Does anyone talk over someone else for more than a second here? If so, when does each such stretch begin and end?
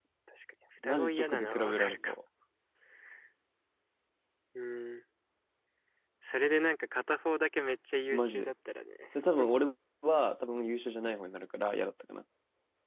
0.8-2.1

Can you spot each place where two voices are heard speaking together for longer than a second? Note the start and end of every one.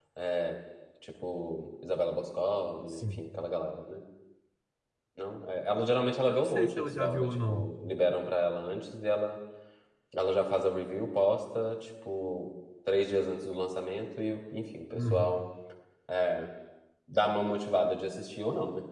6.3-7.7

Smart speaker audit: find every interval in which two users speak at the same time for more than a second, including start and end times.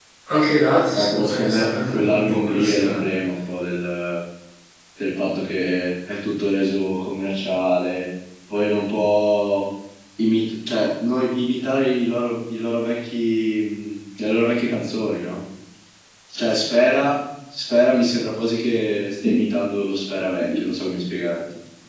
1.0-3.1

